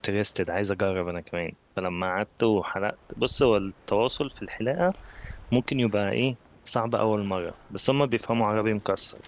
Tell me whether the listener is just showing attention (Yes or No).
Yes